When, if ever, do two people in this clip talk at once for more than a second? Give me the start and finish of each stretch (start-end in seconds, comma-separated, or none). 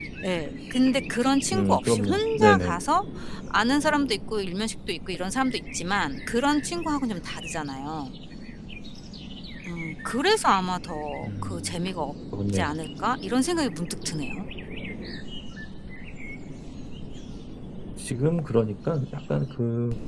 1.5-2.8